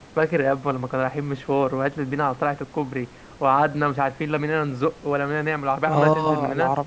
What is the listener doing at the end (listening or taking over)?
taking over